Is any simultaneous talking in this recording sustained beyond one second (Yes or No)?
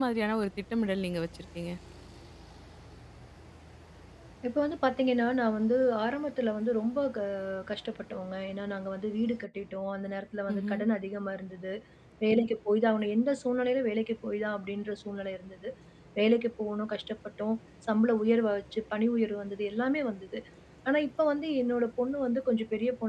No